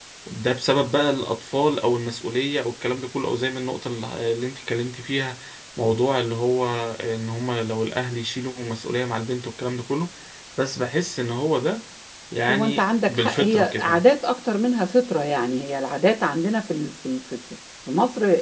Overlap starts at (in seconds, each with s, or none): 12.5 s